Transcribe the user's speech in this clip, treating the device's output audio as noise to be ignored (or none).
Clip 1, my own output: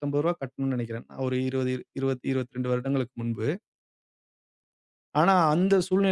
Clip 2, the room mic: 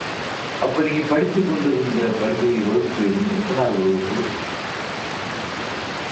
அப்ப நீங்க படித்துக் கொண்டிருந்த பள்ளி வகுப்பு என் எத்தனாவது வகுப்பு?